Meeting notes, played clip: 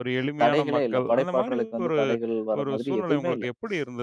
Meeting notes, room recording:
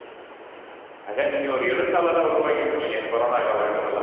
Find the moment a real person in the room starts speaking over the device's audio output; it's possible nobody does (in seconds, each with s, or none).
1.1 s